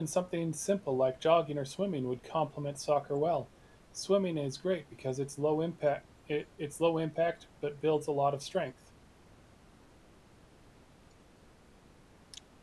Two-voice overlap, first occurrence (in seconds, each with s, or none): none